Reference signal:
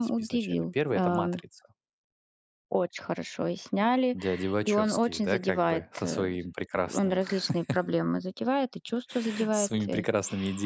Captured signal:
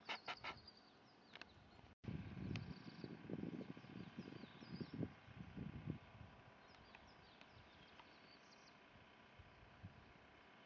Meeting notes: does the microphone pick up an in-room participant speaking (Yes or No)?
No